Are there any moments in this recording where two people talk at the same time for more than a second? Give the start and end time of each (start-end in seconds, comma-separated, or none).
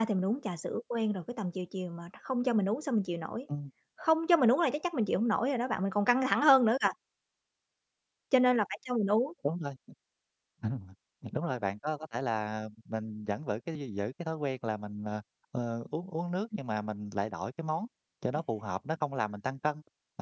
none